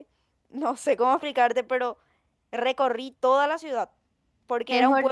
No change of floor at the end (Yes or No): No